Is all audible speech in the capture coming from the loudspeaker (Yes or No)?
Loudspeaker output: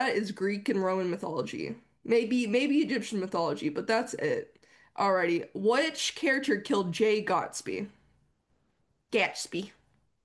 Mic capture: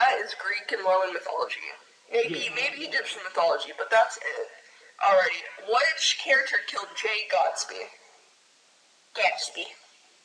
No